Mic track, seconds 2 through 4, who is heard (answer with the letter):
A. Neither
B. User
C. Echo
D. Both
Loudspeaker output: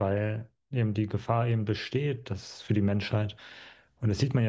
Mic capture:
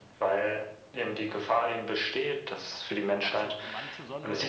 D